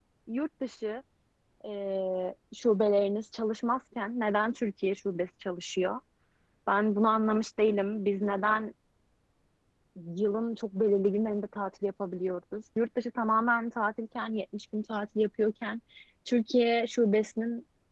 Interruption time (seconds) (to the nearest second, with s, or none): none